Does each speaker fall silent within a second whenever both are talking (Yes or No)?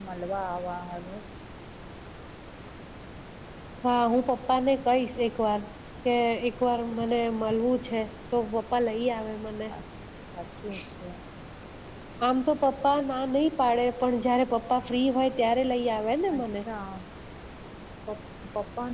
Yes